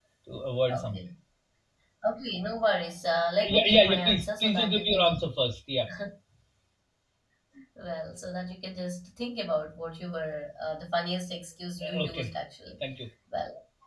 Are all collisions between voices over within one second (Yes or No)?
No